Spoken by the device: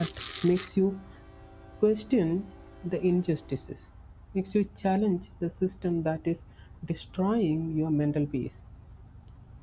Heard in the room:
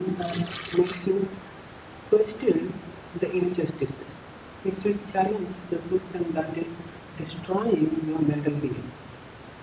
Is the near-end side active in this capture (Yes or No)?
No